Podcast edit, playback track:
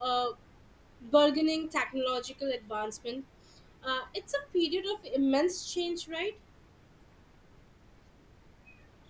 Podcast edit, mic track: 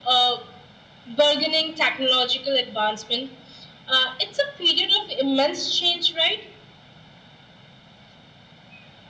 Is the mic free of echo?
No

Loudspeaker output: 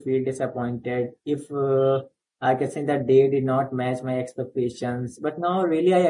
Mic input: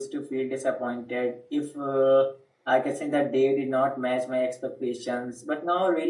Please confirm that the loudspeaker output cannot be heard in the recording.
No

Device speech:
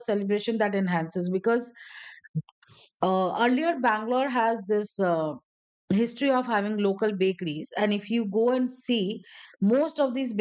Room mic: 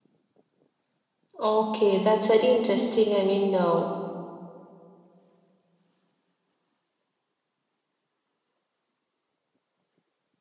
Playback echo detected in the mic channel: No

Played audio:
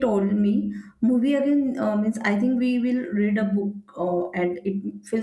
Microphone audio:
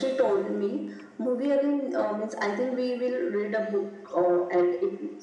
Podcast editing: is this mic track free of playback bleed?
No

